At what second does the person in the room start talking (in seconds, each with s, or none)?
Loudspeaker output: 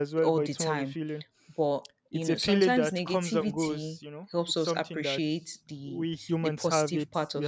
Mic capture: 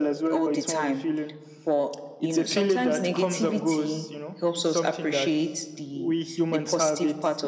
none